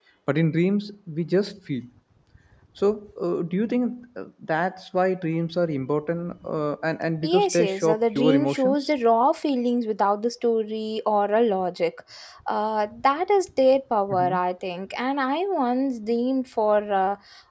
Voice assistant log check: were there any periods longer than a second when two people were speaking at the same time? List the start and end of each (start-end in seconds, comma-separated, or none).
7.2-8.8